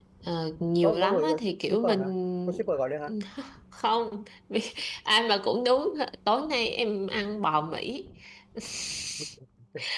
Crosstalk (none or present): present